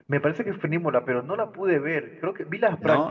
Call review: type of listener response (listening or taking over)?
listening